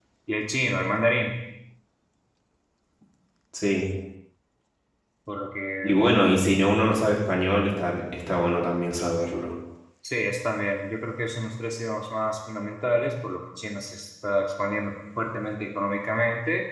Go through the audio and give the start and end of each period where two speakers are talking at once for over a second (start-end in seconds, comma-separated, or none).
none